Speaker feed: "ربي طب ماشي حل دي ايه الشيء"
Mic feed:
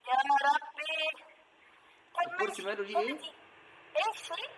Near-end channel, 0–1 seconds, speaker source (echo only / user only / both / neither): echo only